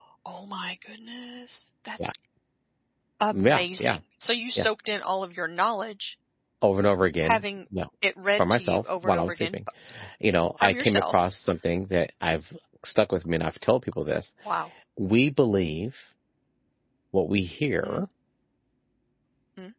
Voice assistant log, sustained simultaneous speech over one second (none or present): present